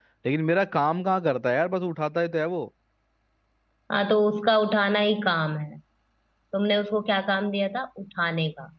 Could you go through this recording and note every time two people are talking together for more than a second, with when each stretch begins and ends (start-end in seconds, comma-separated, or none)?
none